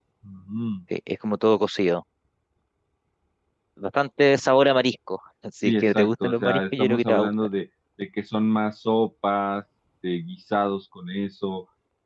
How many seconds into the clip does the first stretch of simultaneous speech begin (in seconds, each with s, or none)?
5.6 s